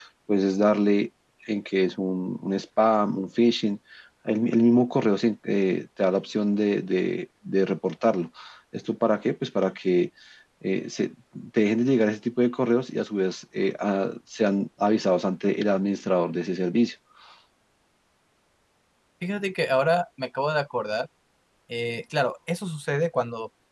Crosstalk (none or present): none